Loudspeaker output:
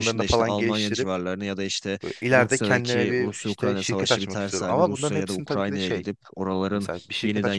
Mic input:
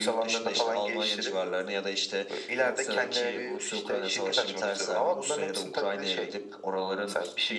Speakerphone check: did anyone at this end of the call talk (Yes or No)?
No